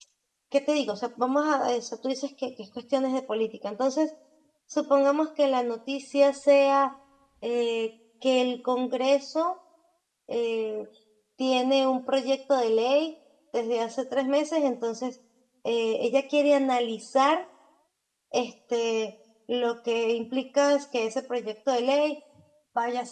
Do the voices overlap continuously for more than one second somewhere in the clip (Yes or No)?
No